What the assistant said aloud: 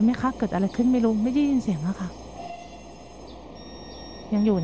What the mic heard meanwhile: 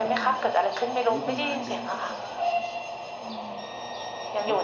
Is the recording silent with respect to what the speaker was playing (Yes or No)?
No